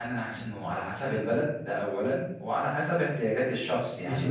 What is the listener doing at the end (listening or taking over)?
taking over